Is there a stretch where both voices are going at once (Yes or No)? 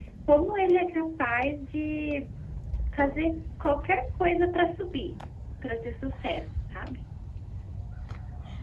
No